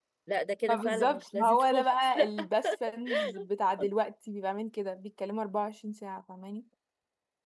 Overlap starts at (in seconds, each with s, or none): 0.7 s